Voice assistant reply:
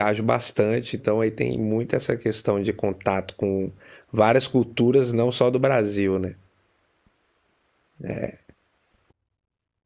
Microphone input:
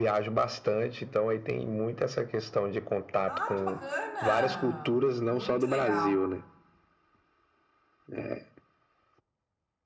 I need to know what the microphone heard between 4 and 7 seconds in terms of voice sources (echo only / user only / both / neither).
both